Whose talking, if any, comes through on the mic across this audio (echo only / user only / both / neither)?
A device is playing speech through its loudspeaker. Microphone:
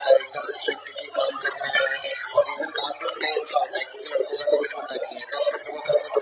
echo only